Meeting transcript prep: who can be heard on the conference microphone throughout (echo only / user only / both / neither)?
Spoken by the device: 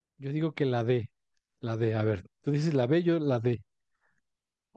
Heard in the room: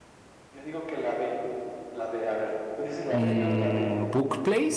both